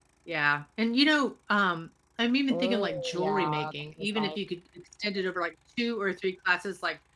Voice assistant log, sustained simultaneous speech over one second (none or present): present